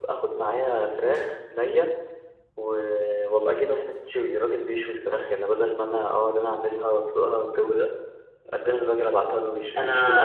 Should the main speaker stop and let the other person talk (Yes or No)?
Yes